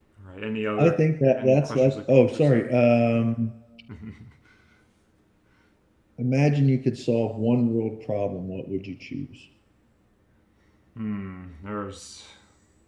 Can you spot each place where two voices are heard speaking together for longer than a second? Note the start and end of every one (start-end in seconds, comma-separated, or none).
1.4-2.7